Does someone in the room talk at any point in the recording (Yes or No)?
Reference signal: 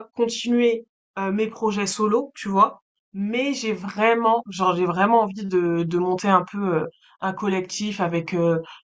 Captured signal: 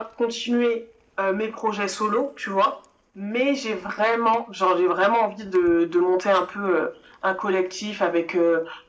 No